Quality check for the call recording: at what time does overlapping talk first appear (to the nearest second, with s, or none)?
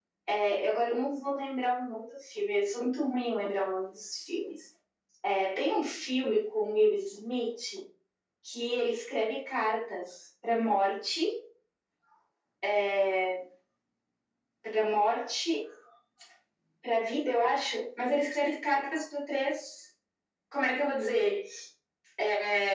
none